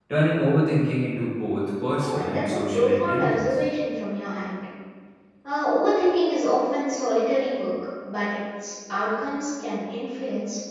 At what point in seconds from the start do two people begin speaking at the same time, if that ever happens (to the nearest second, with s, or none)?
2 s